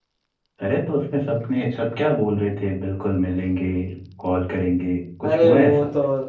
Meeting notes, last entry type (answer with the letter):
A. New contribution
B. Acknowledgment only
A